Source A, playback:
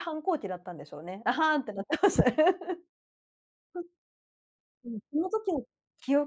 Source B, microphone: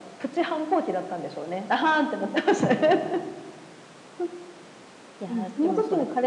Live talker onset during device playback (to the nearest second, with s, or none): 5 s